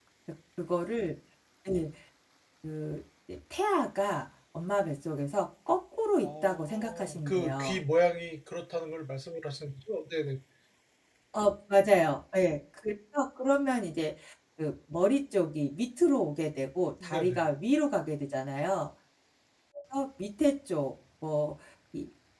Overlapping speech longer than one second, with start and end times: 6.2-7.8

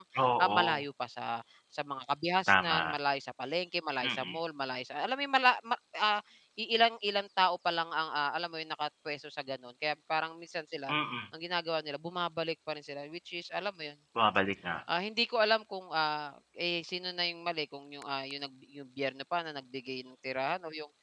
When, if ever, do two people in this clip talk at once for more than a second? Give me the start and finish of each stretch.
none

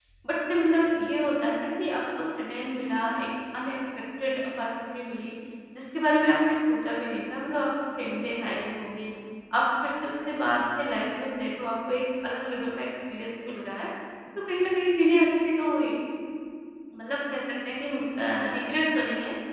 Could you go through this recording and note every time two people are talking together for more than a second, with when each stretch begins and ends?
none

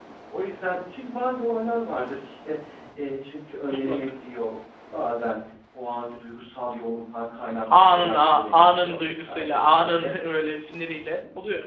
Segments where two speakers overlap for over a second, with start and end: 7.8-10.1

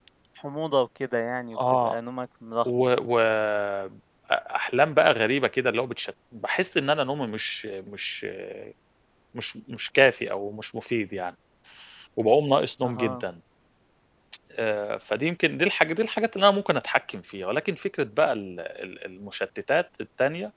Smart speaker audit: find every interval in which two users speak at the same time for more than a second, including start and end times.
none

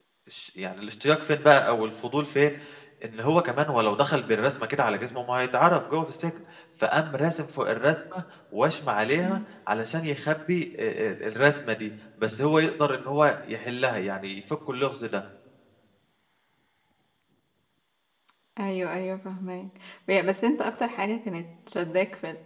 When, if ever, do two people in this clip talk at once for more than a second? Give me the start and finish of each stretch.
none

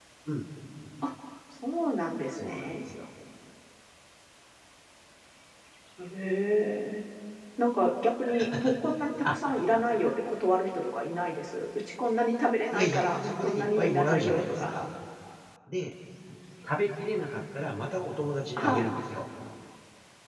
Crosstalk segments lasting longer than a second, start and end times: 12.7-14.8

